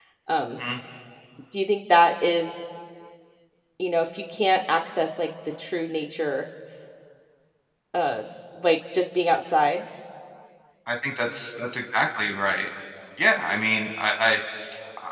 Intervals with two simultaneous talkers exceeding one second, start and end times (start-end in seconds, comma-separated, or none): none